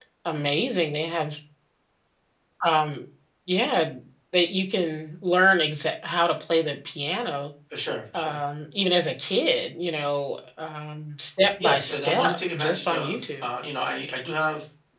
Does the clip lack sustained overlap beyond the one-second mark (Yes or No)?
No